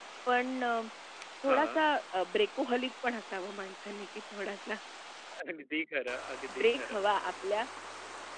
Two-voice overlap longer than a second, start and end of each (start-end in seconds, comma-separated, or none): none